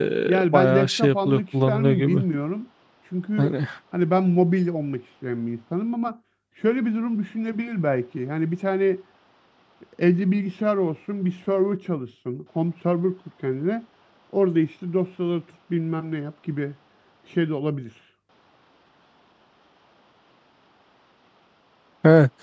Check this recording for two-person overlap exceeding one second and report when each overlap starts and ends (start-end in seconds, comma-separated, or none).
0.5-2.2